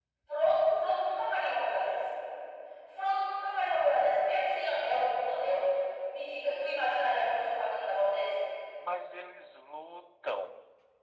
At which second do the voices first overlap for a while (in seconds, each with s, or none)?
none